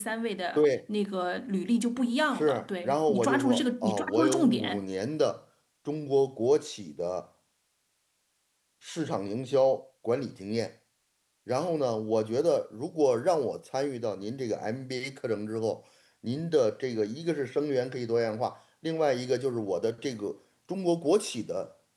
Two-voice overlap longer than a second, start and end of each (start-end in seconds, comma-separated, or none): 2.3-4.8